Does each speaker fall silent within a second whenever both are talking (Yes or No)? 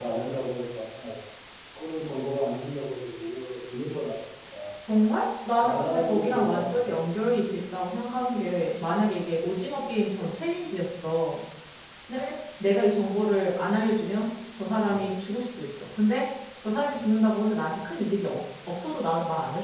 No